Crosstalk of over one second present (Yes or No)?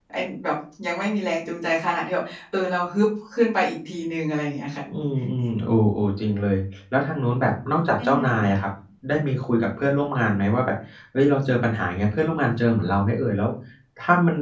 No